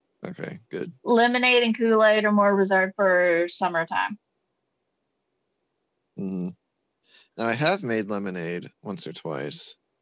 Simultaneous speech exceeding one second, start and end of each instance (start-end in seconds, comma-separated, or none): none